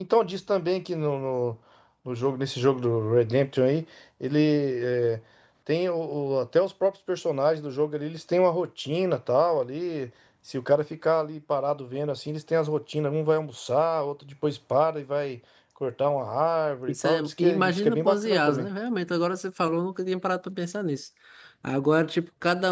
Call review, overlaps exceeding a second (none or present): present